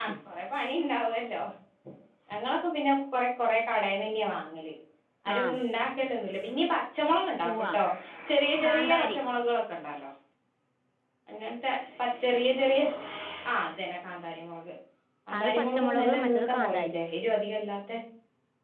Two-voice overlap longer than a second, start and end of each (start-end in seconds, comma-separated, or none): 15.4-17.0